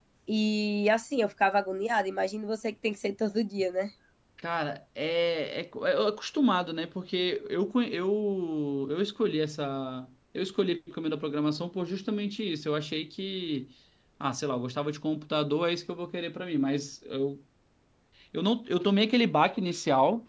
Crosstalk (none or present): none